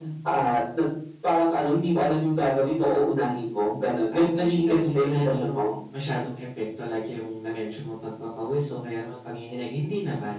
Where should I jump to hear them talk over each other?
4.1 s

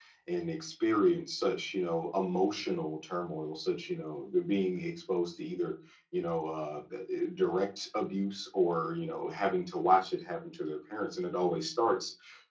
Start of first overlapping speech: none

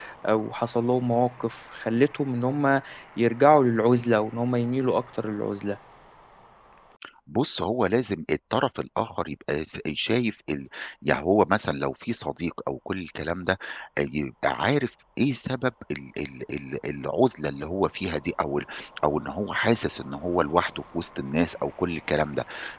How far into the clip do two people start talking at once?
none

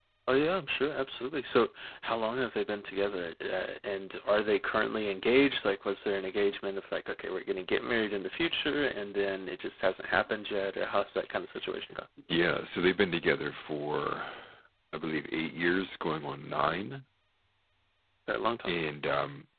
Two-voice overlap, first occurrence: none

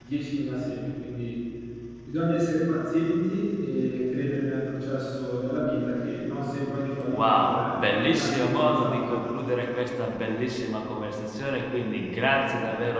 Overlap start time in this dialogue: 7.1 s

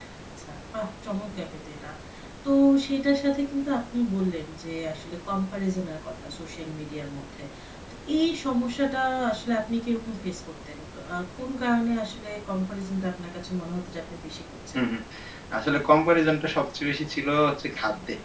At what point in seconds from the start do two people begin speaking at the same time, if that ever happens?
none

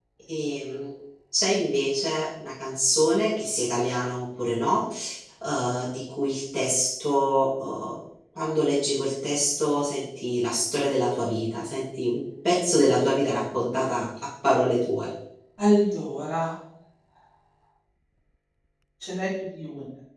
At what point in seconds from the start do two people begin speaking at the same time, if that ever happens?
none

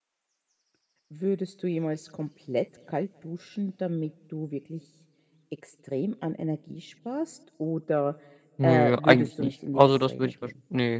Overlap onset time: 8.6 s

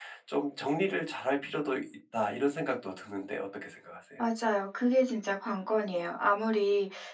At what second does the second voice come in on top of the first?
none

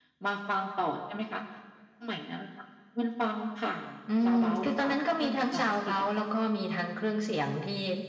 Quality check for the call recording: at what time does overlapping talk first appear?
4.2 s

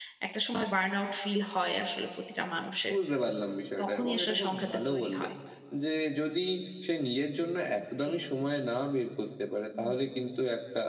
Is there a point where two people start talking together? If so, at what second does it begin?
3.8 s

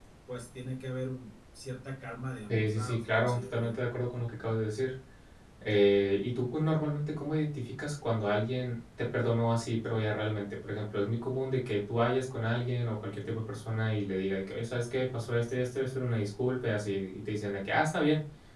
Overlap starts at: 2.5 s

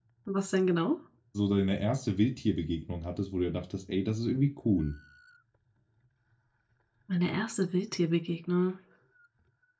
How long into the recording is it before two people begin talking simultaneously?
none

